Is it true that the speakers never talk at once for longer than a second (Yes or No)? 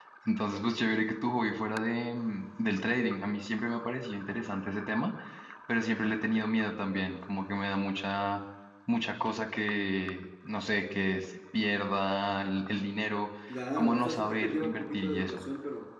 No